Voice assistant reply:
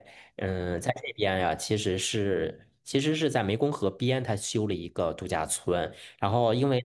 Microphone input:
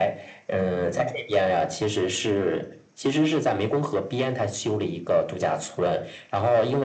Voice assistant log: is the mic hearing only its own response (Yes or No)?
Yes